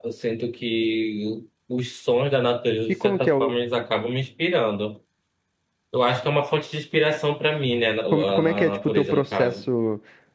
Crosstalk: present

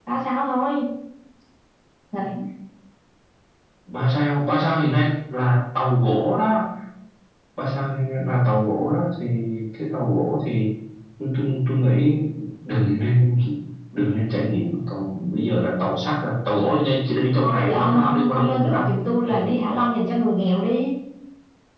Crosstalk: present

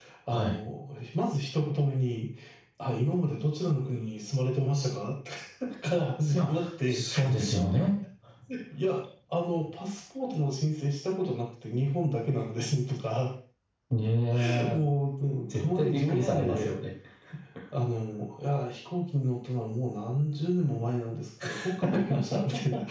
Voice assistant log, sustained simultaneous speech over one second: present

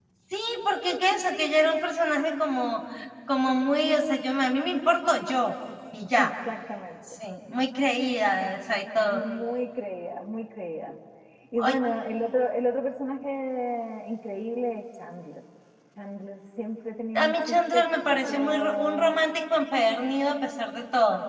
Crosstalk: present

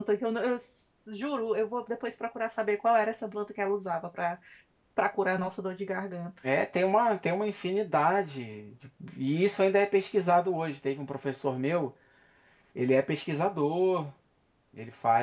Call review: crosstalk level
none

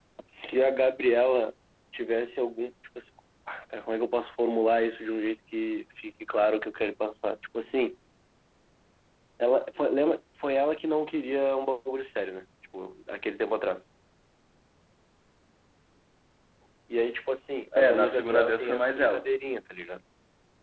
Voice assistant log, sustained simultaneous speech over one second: present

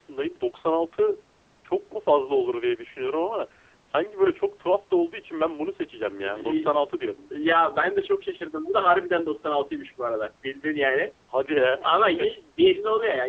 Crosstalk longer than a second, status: none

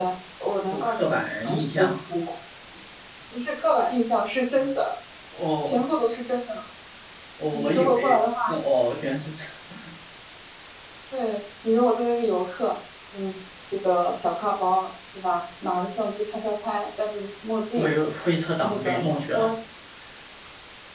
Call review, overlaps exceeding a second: present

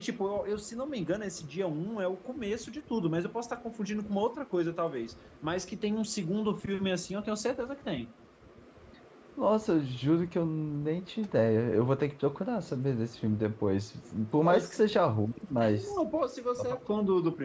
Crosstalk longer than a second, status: none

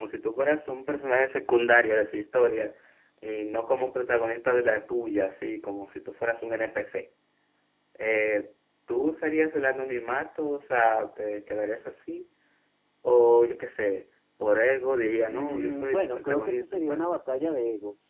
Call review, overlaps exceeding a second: present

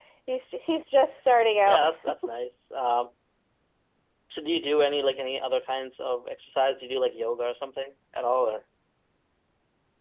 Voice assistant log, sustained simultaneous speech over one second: none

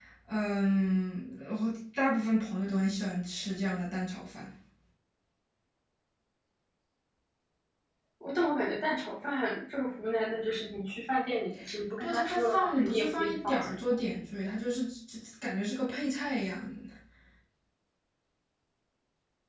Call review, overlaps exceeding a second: present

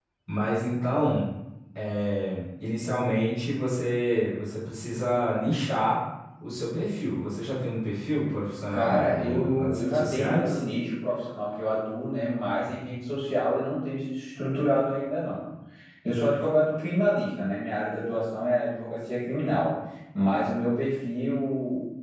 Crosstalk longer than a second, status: present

